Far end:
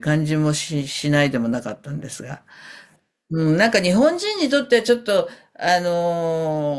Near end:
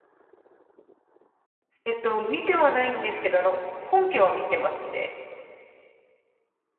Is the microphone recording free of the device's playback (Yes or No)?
Yes